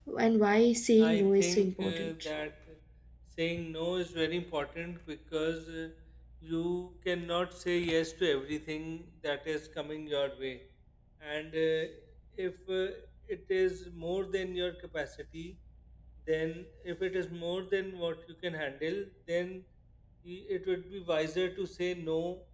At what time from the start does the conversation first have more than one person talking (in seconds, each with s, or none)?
1.0 s